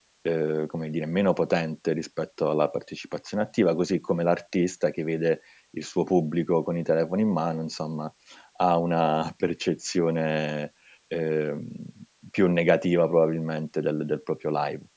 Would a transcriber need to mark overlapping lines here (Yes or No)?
No